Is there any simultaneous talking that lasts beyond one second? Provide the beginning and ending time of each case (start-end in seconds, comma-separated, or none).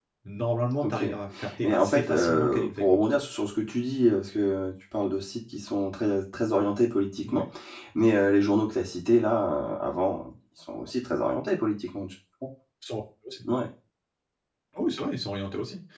1.6-2.8